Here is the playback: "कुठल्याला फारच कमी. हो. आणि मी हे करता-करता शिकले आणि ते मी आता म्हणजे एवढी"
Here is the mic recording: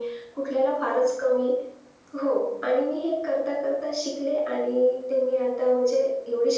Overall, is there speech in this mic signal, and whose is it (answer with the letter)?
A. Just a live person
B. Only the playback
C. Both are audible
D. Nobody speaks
B